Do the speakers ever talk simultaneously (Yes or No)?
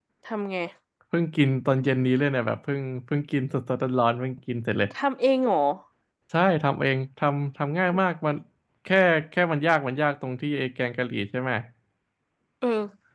No